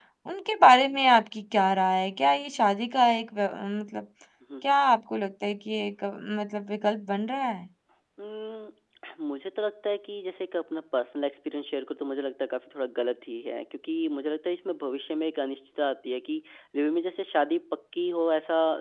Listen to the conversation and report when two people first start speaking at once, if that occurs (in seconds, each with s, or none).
none